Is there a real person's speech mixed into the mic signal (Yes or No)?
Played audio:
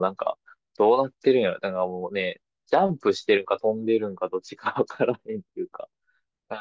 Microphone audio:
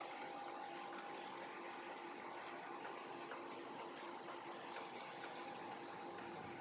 No